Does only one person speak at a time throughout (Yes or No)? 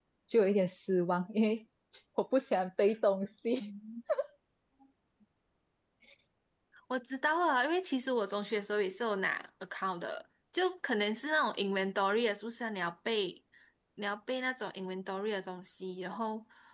Yes